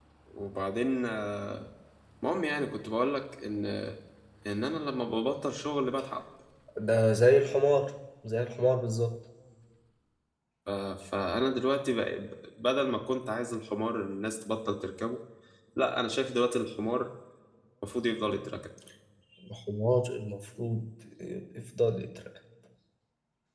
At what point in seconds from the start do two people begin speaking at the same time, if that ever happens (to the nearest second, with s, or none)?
none